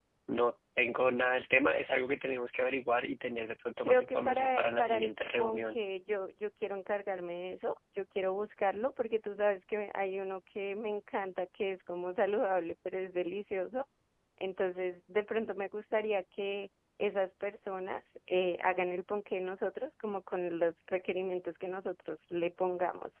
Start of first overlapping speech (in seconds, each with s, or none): 3.8 s